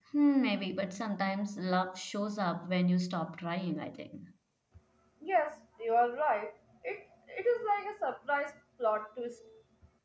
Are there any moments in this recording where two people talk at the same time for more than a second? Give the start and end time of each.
none

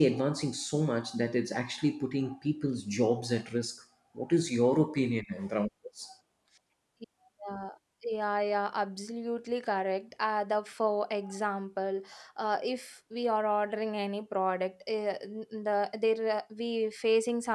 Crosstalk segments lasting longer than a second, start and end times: none

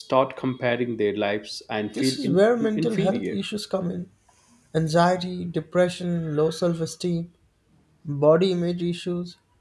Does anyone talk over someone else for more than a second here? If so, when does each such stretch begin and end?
1.9-3.4

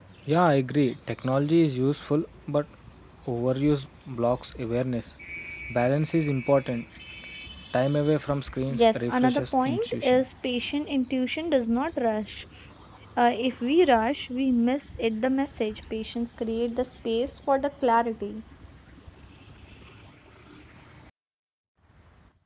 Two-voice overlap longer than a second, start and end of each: 8.7-10.2

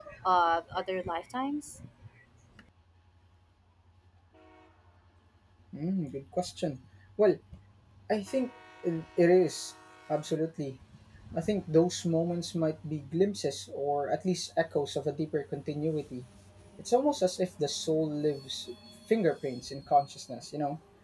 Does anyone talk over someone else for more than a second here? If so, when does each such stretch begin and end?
none

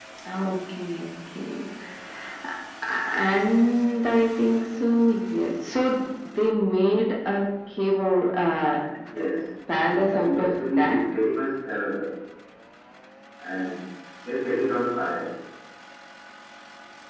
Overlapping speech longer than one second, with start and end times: 9.8-11.0

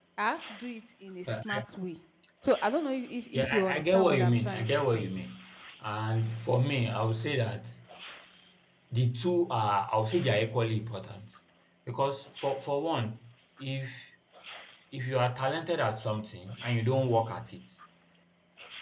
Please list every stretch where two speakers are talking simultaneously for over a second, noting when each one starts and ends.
3.3-5.1

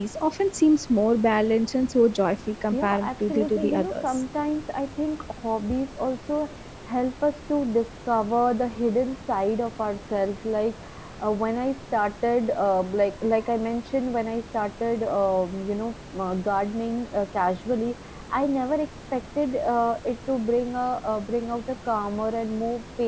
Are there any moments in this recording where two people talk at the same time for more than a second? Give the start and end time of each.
2.7-4.2

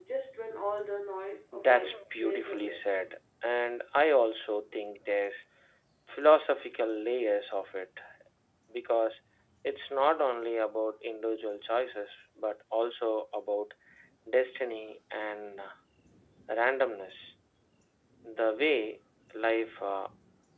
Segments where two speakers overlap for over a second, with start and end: 1.5-2.8

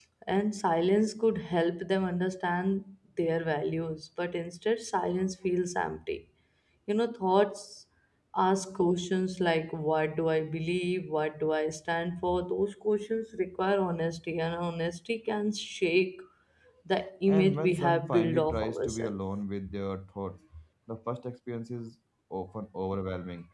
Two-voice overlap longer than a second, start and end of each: 17.3-19.2

